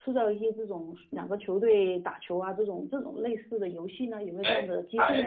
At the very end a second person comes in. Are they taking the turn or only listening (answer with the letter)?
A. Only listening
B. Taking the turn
B